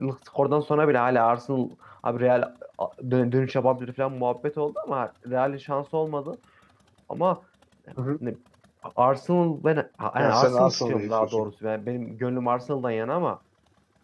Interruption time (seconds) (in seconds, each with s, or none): 10.2 s